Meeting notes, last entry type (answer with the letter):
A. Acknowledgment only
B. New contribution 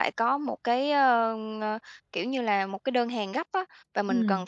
A